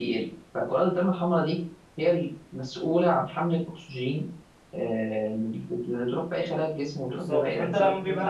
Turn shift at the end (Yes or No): Yes